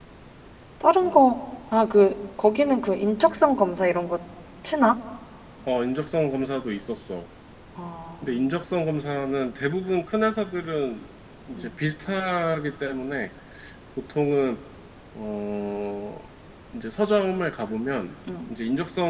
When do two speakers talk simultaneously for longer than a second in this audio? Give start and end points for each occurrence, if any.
none

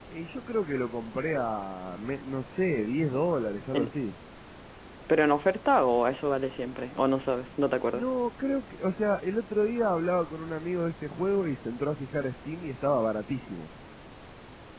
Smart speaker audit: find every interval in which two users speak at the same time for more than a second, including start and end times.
none

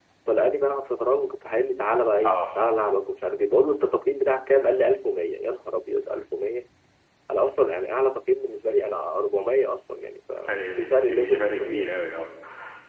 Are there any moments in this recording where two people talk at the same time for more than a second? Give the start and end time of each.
10.4-11.9

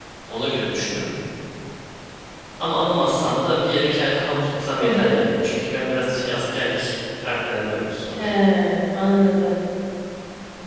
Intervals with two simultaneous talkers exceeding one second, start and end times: none

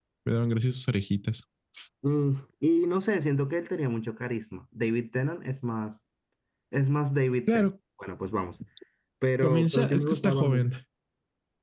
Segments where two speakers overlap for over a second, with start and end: 9.4-10.6

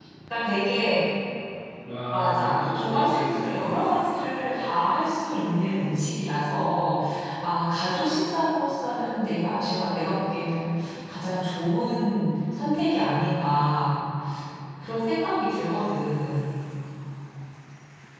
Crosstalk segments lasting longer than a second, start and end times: 2.1-3.8

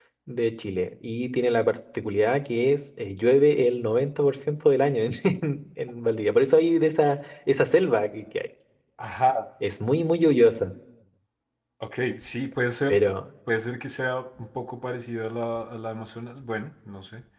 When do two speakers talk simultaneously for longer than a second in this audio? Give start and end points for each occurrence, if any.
none

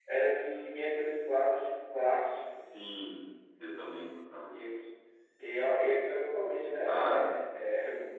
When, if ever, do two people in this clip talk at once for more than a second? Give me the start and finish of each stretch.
none

